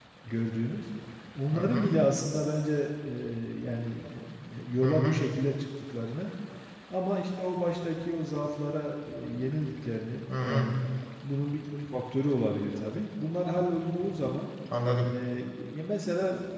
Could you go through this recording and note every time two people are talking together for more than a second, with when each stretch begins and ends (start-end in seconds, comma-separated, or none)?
none